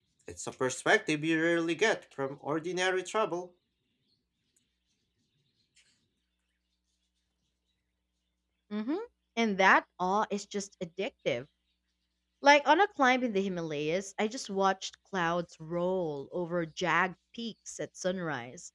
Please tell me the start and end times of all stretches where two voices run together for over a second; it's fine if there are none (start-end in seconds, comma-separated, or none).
none